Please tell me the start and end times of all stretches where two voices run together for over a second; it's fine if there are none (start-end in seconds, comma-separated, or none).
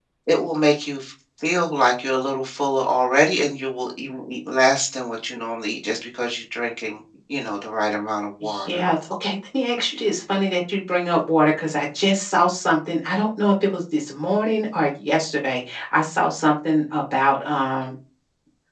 none